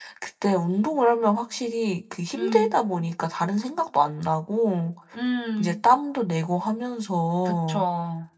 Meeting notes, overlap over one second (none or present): none